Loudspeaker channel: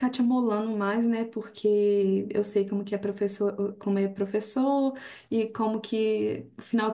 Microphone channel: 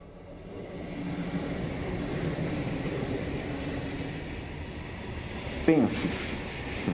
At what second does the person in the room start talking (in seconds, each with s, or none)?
5.6 s